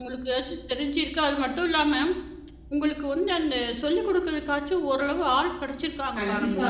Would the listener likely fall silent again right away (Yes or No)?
No